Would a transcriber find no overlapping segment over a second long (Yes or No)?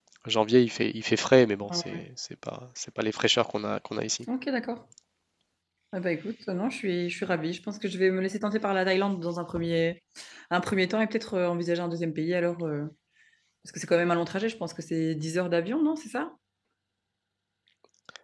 Yes